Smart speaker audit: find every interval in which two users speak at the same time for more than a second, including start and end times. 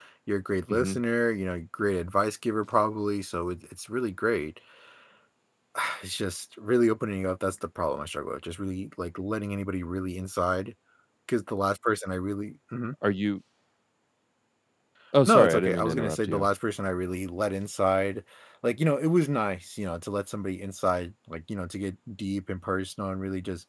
15.2-16.5

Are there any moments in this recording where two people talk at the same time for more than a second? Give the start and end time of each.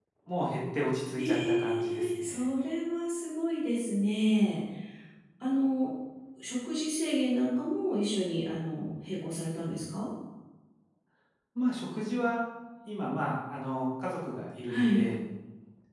1.1-2.5

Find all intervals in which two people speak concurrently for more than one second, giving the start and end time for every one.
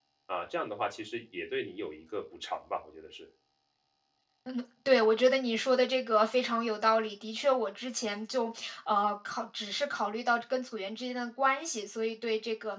none

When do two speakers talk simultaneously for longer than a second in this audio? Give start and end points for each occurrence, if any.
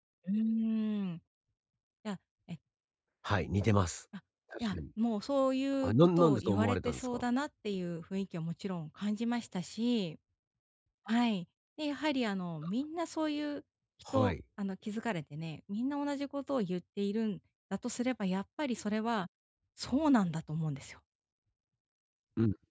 5.8-7.2

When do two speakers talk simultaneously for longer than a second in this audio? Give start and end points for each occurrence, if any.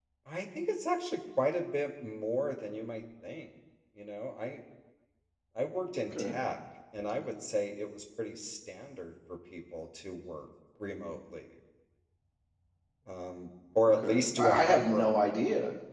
13.9-15.1

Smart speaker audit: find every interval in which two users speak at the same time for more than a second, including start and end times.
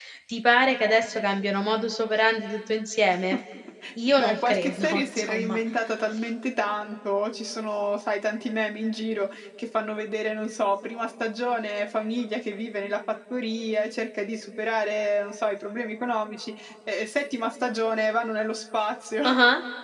4.2-5.6

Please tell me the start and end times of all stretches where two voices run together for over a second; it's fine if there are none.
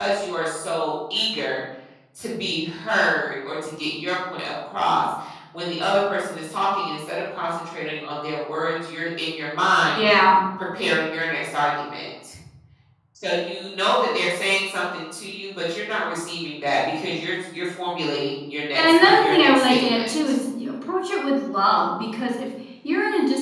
18.8-20.1

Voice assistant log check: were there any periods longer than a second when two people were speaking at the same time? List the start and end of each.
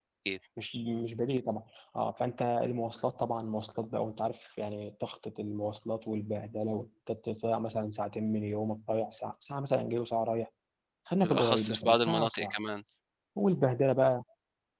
11.2-12.5

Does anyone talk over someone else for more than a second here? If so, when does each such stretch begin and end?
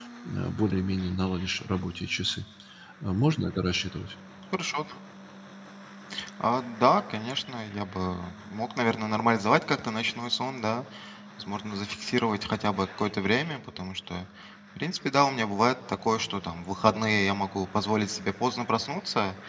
none

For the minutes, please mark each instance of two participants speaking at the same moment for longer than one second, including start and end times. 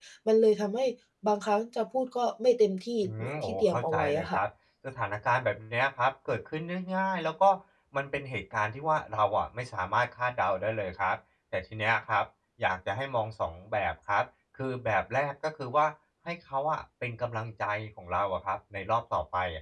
3.0-4.4

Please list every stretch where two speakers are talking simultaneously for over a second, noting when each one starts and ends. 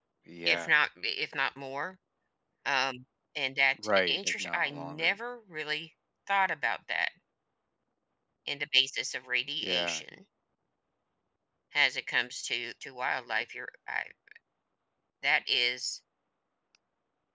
3.8-5.1

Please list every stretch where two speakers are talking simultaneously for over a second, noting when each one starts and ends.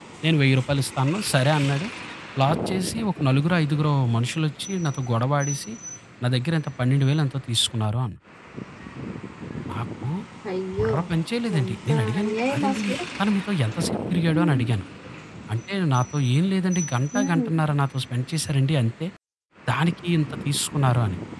11.6-12.9

